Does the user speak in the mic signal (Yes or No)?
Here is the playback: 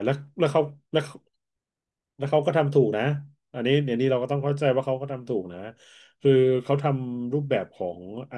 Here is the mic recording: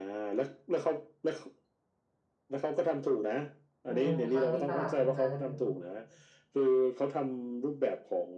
Yes